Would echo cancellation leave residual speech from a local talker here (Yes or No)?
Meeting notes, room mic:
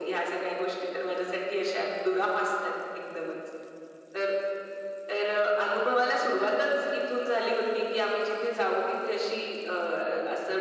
No